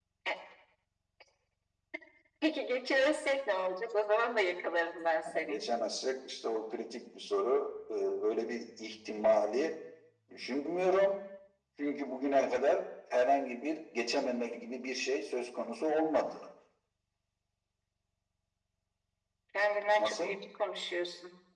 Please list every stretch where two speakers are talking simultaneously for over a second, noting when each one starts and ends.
none

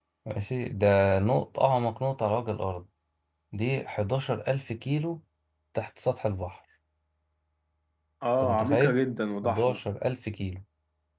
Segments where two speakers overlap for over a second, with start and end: none

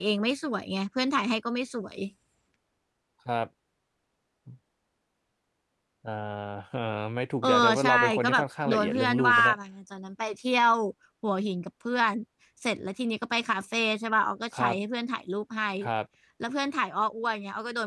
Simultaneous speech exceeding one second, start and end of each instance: 7.4-9.6

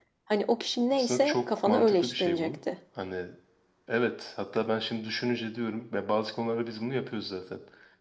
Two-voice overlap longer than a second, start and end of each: 0.9-2.5

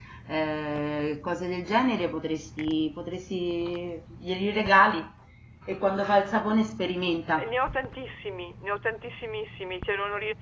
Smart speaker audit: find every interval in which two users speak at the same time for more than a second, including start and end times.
none

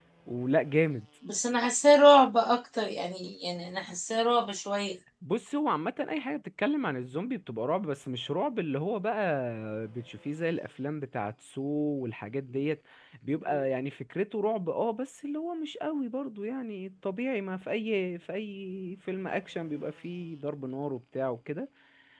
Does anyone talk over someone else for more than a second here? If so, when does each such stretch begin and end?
none

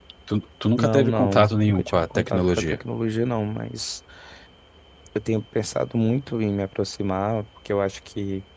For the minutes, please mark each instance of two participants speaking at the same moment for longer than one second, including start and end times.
0.8-2.8

